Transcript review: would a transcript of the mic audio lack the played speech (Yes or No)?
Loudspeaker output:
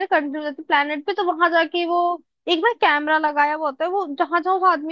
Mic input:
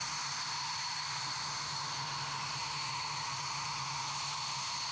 Yes